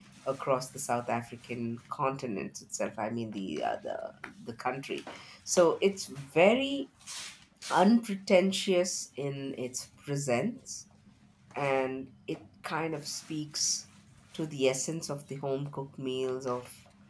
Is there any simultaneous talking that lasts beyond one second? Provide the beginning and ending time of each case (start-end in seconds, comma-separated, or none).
none